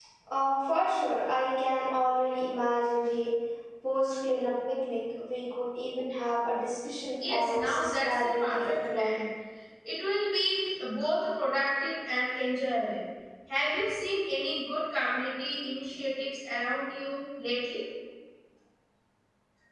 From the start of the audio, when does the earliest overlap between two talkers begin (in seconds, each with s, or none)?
7.2 s